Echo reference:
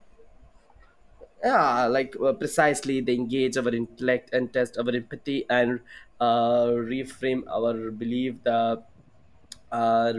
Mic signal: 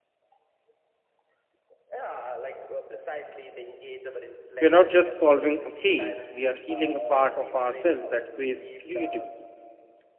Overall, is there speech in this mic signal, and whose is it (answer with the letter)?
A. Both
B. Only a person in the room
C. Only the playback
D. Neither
A